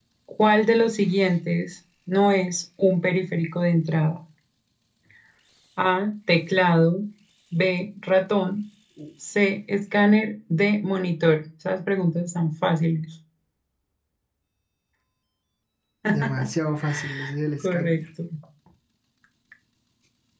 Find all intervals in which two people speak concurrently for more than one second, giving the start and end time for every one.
none

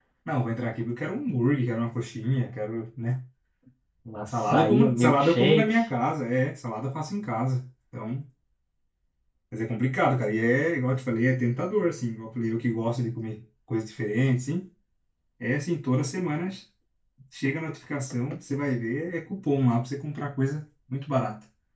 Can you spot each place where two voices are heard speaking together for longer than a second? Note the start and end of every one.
4.3-5.8

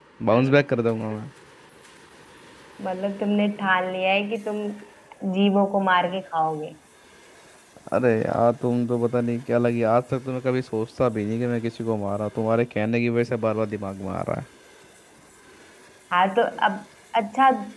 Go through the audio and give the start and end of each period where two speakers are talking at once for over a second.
none

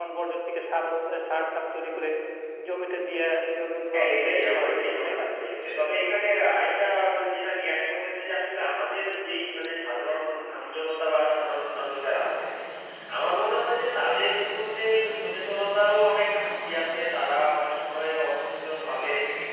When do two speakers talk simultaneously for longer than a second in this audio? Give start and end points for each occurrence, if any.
3.9-5.2

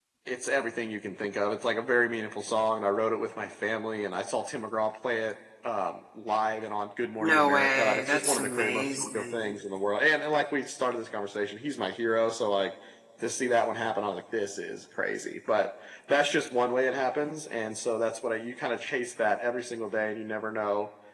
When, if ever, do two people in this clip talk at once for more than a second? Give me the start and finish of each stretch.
7.2-9.4

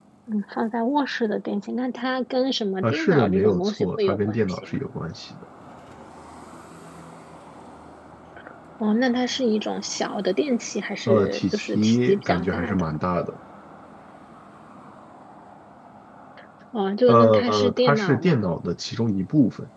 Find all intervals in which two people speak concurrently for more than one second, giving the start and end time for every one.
2.8-4.7, 11.1-12.8, 17.1-18.4

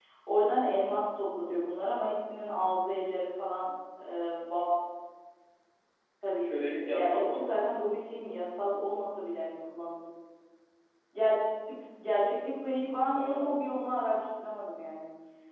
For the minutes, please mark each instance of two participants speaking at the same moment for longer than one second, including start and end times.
6.4-7.9

